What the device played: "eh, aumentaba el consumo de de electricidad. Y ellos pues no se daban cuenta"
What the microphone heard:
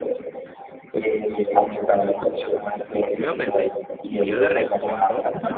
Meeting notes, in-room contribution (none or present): present